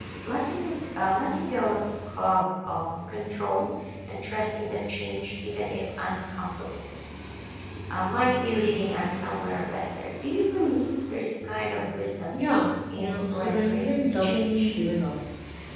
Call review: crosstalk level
present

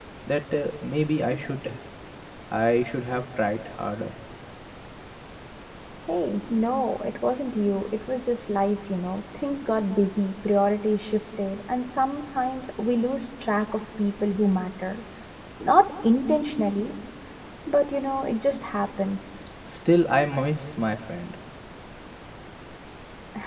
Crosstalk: none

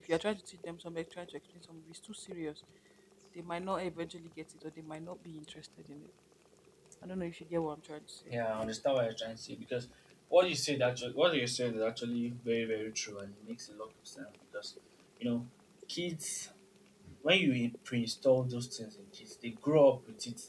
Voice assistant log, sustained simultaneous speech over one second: none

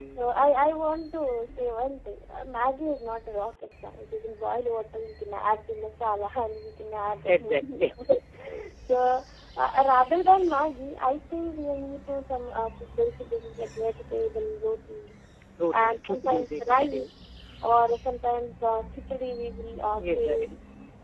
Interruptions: present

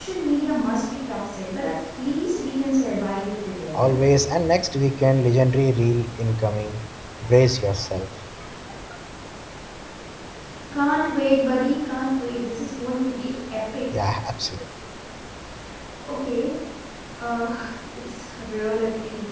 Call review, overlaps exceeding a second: none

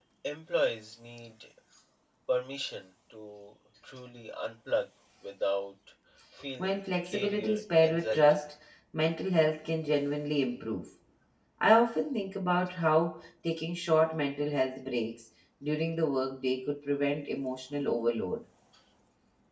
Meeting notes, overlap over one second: present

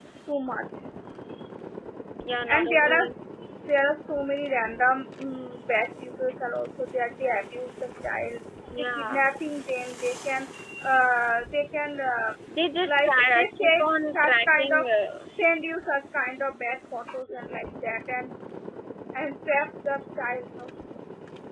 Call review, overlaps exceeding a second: present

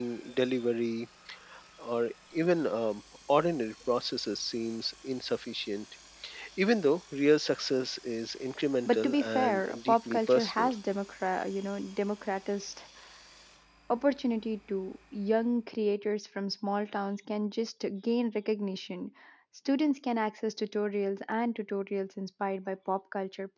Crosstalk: present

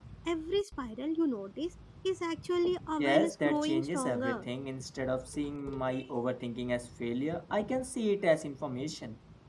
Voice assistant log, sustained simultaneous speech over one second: present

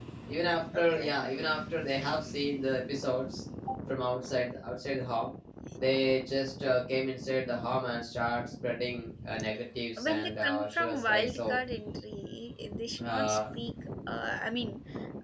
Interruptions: present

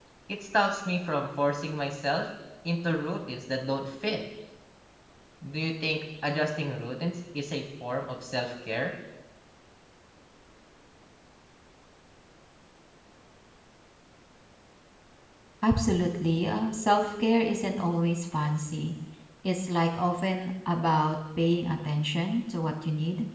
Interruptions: none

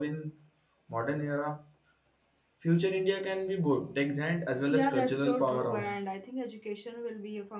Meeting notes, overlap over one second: present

